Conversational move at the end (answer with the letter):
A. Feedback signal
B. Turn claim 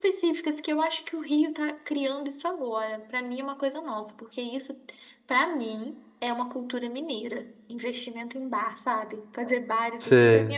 A